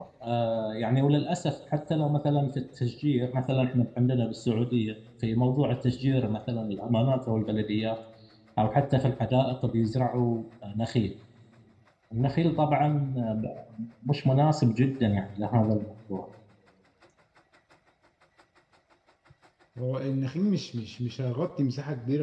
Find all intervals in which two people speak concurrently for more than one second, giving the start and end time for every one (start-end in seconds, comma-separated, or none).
none